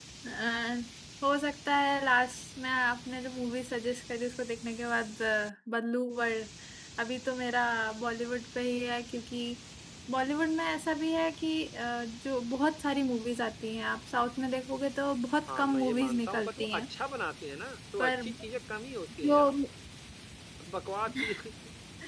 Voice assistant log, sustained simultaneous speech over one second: present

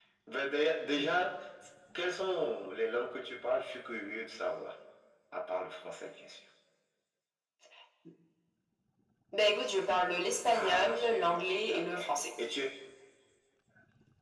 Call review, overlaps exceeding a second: present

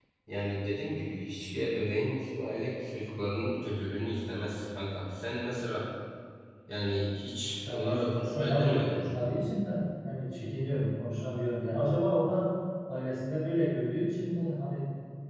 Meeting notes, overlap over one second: present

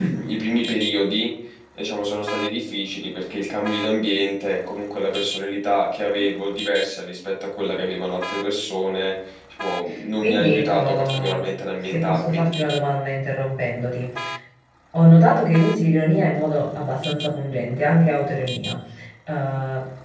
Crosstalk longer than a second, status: present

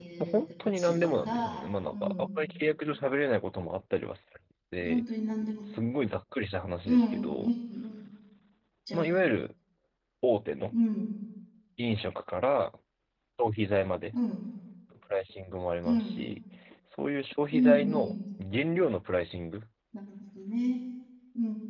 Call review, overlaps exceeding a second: present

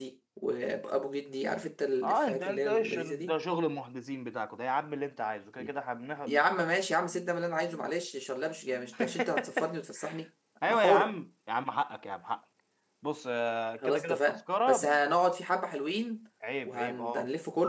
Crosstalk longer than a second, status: present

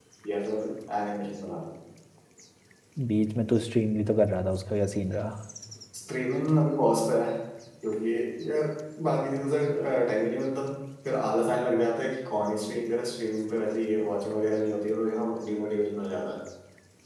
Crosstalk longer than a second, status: none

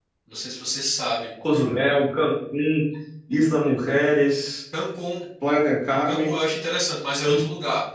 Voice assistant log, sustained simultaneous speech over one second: none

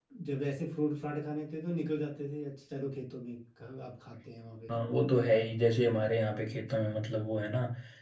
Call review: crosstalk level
none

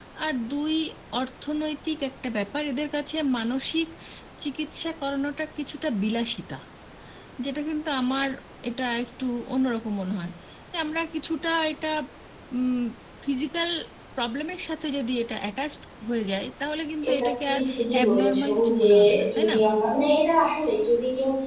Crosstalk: present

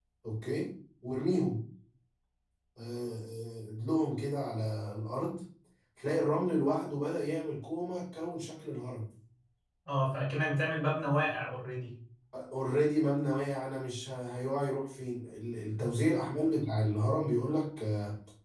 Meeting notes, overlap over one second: none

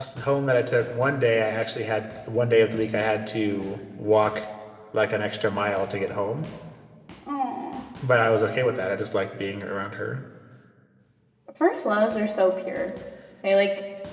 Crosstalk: none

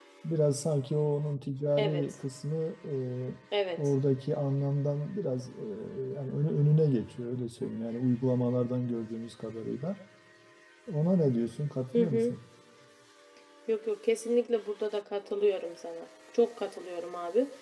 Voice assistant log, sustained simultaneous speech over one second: none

